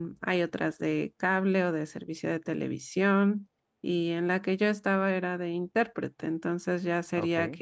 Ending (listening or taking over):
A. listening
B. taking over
A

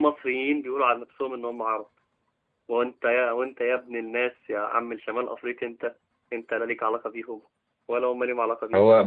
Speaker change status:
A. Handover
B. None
A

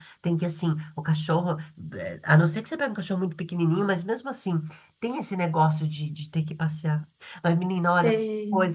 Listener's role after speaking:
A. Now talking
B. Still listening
B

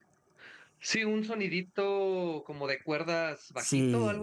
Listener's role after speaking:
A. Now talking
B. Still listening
A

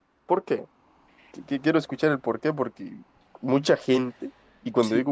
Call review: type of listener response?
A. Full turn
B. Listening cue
B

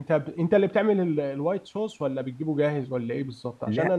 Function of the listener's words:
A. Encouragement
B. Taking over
A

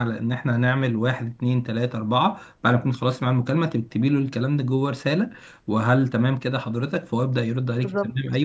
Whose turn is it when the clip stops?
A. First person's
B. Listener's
A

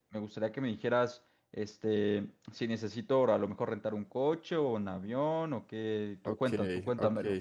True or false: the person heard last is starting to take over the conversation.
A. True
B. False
A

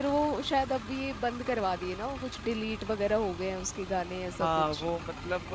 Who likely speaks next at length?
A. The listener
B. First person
A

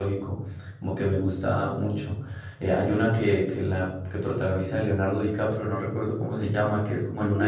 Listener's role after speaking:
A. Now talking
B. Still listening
A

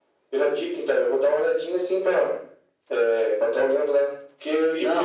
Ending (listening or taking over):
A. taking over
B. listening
B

